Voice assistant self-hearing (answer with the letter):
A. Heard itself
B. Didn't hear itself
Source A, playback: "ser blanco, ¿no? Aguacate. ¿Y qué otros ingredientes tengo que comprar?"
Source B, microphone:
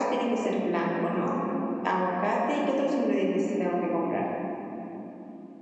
A